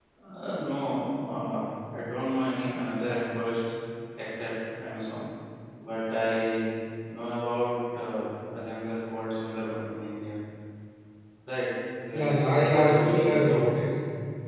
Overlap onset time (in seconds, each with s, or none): 12.1 s